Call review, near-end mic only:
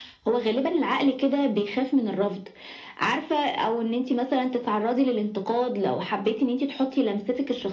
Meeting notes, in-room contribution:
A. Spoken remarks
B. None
B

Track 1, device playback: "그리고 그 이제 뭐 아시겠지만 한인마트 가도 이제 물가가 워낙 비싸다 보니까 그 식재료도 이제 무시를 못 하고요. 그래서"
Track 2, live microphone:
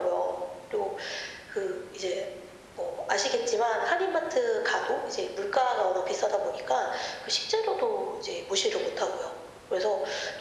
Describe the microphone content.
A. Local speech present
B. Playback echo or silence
B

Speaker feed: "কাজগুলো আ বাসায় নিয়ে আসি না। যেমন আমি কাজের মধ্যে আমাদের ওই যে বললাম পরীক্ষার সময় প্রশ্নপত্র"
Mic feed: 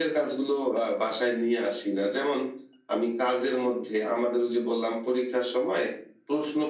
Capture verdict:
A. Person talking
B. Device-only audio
B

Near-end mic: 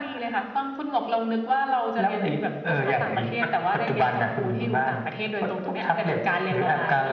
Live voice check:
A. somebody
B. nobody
B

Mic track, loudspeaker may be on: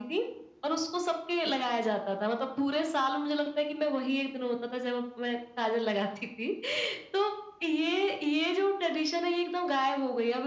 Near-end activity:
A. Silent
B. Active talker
A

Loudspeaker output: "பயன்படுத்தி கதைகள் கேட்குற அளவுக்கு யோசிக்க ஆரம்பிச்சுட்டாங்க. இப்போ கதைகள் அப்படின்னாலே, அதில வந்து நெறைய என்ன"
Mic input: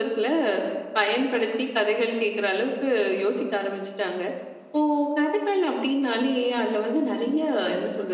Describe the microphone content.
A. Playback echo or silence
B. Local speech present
A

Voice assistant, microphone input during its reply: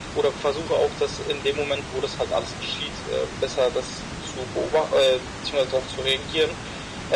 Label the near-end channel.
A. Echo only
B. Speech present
A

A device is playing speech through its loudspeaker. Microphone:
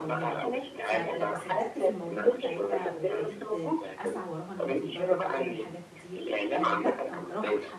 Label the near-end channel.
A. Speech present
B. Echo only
A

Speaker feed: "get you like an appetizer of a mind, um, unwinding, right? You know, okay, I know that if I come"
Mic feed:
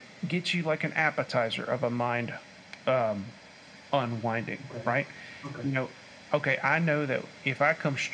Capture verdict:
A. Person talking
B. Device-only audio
A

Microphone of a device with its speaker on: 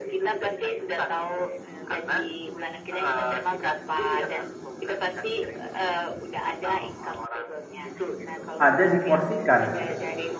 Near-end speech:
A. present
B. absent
A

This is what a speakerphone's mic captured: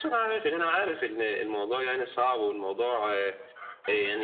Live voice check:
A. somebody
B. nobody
B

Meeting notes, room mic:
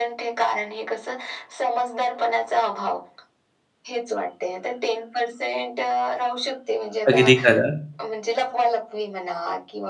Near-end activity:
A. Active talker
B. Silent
A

